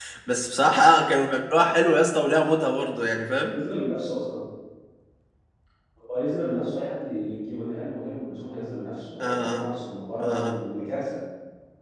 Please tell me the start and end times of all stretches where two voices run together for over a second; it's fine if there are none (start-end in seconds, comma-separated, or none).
none